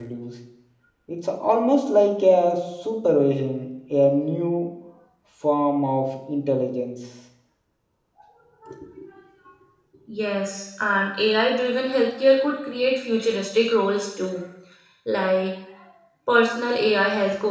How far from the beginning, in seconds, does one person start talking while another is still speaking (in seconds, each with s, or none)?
none